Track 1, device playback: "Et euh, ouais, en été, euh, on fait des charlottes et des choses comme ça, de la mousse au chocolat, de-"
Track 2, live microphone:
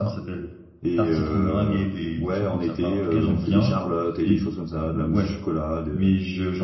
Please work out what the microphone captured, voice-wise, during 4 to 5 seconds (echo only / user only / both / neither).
both